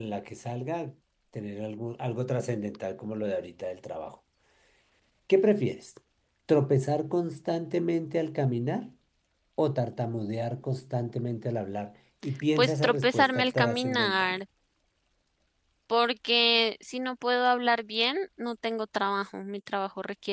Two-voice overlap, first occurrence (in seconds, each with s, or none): 12.6 s